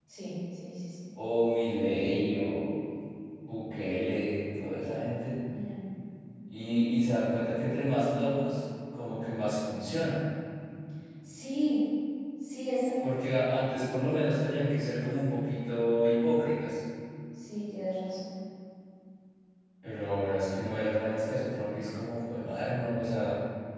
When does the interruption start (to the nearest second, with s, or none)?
none